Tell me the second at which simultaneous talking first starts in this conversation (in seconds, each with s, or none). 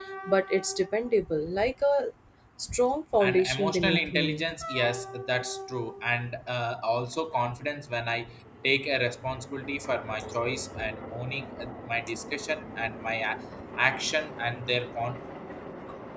3.2 s